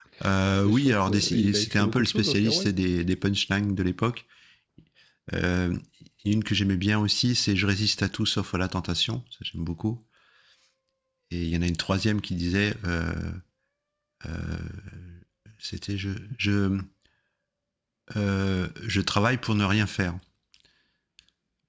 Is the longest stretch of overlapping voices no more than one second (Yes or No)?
No